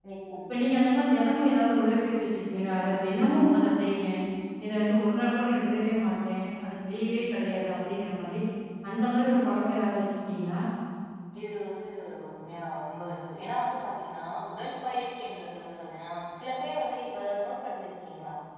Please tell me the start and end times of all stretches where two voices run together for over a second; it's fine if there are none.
none

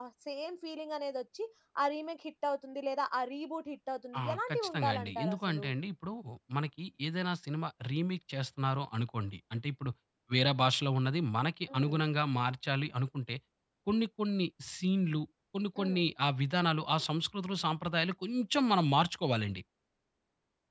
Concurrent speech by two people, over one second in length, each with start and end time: 4.2-5.6

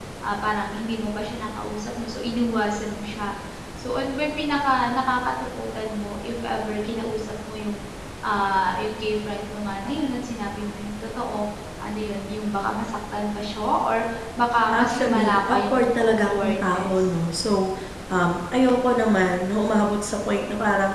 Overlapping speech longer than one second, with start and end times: 14.7-17.0

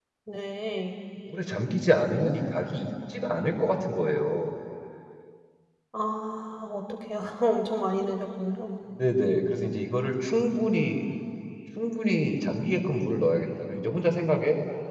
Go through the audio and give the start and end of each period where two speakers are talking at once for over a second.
none

